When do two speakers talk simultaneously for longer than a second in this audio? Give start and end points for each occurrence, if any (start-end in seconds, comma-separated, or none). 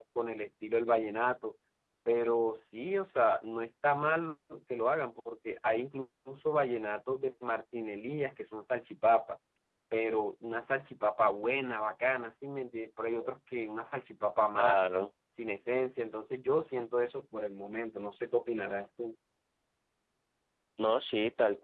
none